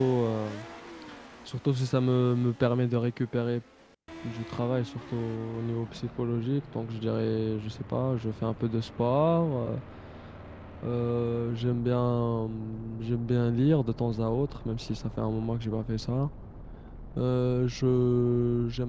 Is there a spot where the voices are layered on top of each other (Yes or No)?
No